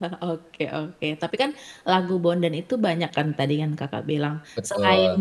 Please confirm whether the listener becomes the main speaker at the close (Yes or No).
No